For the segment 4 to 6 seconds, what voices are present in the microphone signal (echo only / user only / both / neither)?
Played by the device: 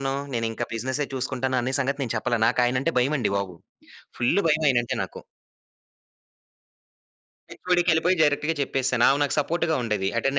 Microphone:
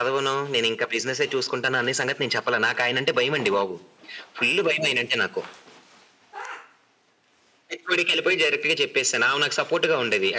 echo only